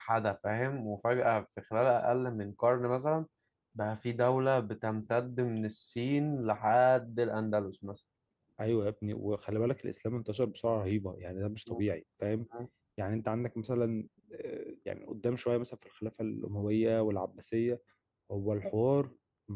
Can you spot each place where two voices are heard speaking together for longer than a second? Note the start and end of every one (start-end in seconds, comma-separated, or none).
none